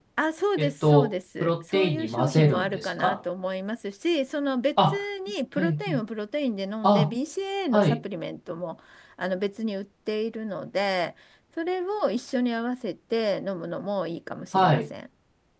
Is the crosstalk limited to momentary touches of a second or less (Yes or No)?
No